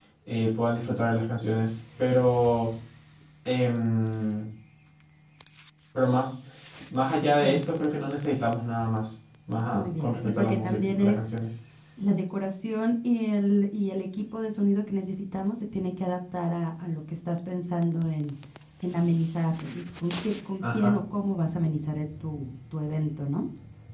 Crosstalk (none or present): present